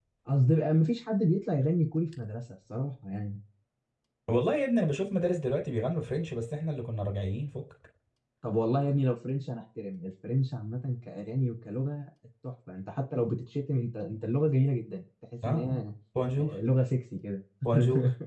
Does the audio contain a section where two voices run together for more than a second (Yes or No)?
No